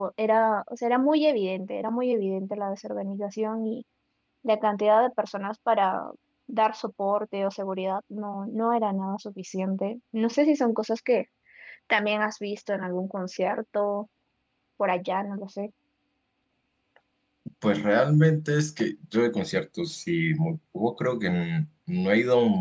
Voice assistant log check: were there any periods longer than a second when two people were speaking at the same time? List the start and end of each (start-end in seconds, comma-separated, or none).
none